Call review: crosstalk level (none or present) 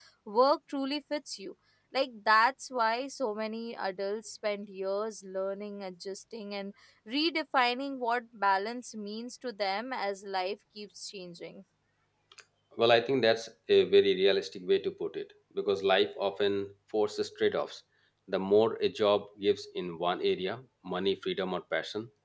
none